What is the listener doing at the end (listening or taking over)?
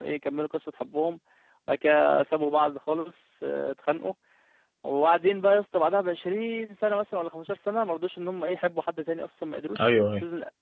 listening